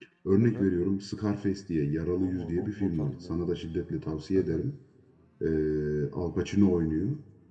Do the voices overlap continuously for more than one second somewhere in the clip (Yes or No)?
Yes